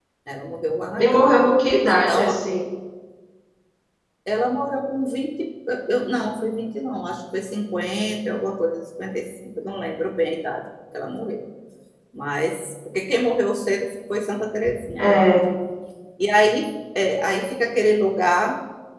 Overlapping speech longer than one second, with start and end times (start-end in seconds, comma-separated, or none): none